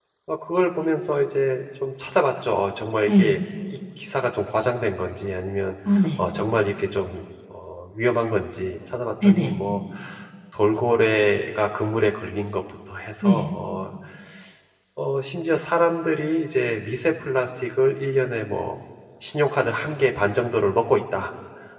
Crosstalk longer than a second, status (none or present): none